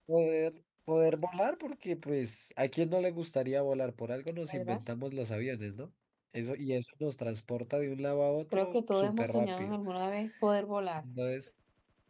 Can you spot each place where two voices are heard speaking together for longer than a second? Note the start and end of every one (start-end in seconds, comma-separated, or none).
8.5-9.8